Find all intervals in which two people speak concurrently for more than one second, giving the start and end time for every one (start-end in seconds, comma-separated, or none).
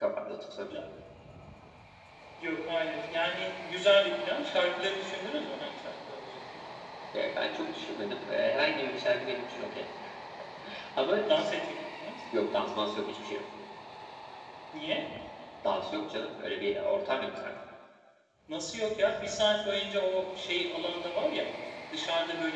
none